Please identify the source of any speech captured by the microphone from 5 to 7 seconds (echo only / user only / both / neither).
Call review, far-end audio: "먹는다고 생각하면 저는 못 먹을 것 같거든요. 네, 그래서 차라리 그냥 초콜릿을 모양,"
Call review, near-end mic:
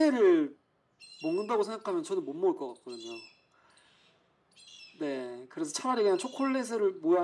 echo only